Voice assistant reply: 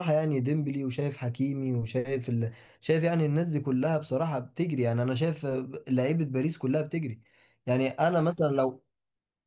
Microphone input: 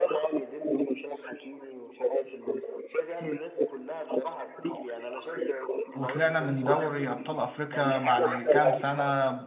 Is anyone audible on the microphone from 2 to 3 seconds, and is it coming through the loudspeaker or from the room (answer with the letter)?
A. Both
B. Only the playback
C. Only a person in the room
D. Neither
B